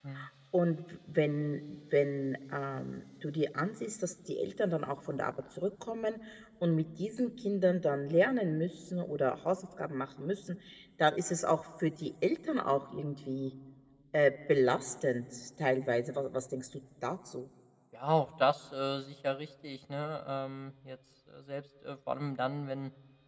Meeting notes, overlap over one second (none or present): none